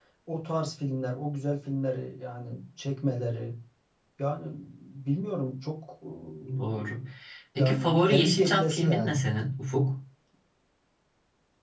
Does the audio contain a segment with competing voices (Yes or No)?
Yes